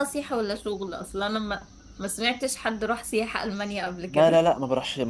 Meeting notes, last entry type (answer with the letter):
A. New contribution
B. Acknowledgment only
A